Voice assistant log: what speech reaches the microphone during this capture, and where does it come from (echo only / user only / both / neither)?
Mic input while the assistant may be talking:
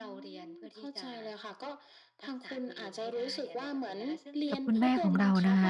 both